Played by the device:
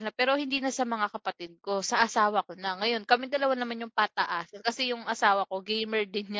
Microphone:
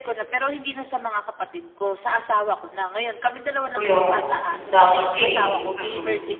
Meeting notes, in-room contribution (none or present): present